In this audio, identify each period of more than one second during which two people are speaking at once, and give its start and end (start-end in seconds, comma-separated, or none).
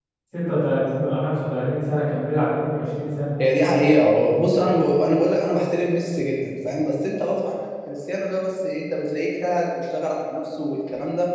none